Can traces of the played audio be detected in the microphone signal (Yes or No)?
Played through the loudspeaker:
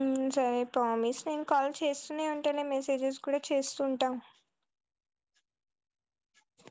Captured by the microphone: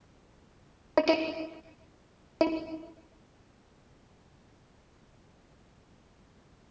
No